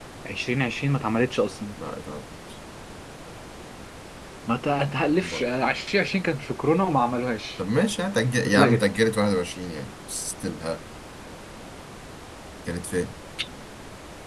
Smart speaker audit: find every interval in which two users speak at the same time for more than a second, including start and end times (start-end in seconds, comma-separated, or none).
none